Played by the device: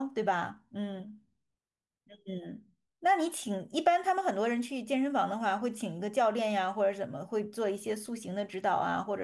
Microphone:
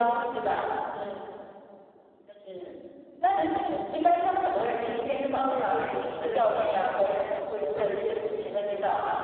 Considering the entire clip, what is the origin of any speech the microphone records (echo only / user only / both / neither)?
both